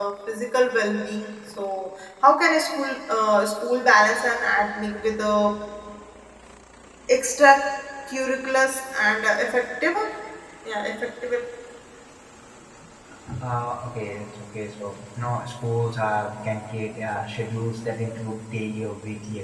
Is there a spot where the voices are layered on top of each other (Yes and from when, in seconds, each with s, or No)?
No